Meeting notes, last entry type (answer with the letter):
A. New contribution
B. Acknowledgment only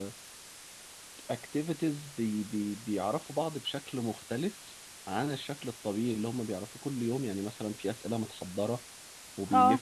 B